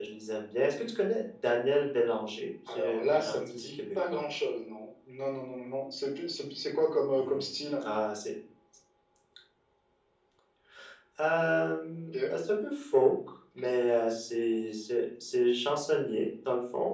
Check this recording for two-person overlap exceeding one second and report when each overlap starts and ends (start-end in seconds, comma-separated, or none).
2.7-4.2